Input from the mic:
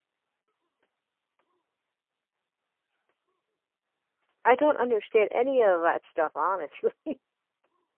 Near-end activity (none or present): present